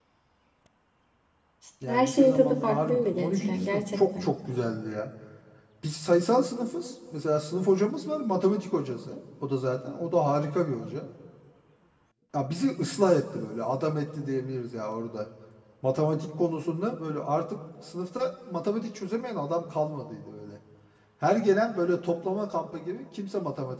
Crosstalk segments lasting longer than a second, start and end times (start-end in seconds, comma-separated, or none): 1.9-4.3